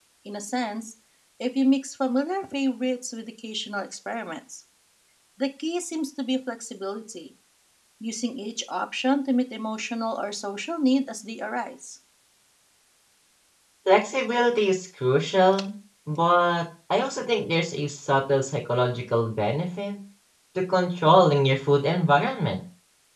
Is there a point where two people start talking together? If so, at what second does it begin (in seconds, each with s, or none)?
none